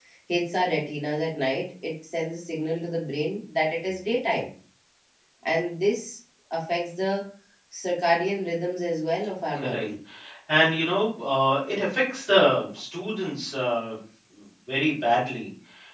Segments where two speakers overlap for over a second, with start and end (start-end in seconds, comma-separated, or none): none